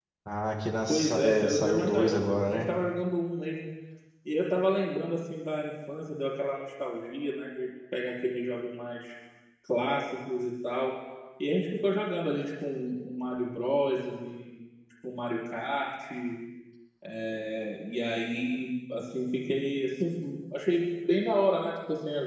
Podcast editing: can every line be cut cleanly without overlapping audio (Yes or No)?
No